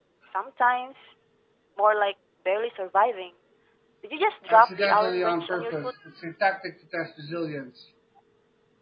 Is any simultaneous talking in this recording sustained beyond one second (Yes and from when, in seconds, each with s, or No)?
Yes, from 4.5 s